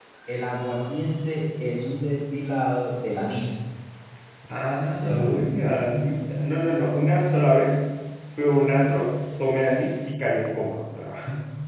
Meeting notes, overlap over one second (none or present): none